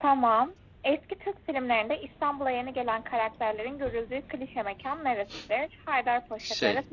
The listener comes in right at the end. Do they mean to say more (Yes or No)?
No